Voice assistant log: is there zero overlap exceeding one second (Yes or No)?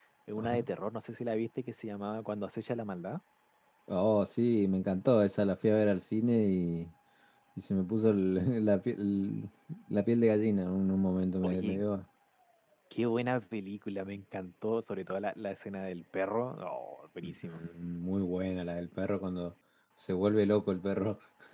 Yes